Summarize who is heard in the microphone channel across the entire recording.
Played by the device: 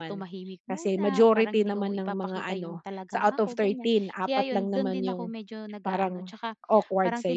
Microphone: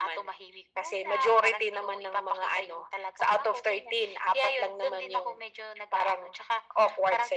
echo only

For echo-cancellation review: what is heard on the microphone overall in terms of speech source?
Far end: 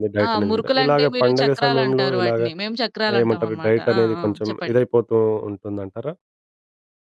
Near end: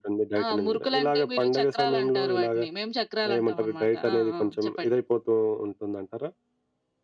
echo only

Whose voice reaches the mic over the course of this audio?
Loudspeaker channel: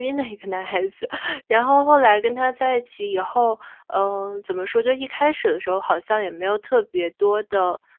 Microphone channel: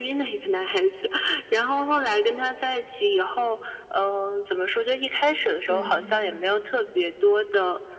both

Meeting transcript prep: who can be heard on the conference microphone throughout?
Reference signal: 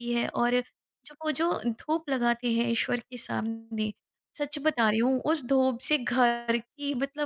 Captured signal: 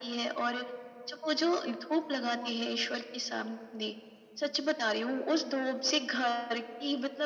both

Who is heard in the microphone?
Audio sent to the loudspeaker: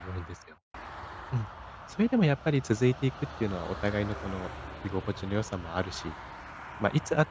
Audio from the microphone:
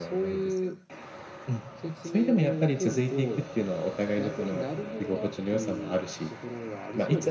both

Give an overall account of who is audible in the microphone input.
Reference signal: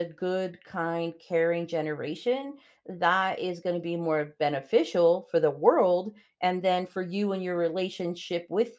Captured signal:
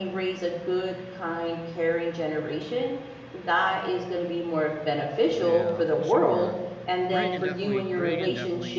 both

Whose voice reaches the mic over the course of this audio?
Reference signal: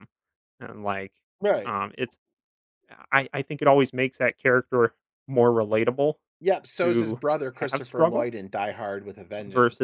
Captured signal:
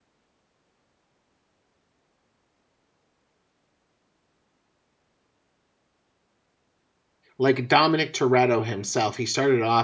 user only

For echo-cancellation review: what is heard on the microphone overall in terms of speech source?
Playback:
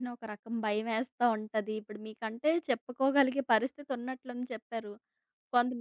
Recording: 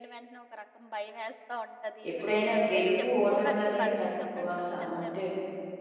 both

